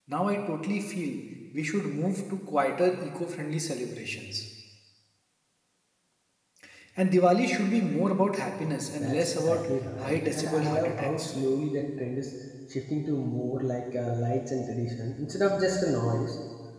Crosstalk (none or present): present